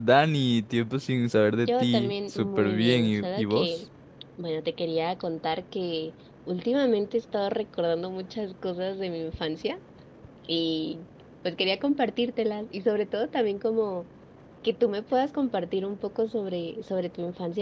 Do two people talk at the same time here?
Yes, from 1.6 s

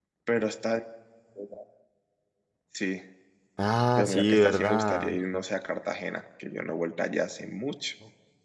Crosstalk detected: Yes, from 4.0 s

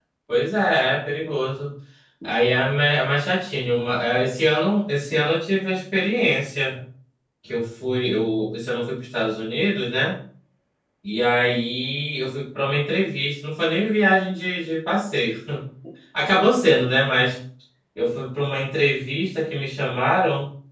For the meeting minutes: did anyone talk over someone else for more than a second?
No

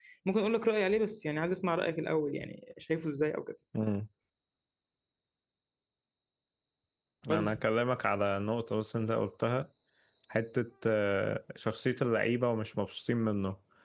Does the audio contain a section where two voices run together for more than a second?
No

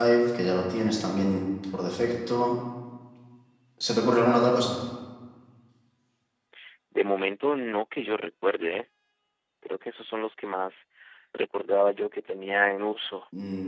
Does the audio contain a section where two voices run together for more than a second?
No

